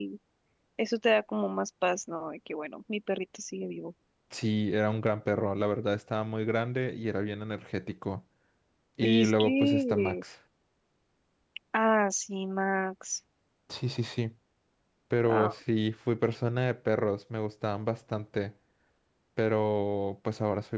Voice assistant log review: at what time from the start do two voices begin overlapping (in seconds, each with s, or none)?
9.0 s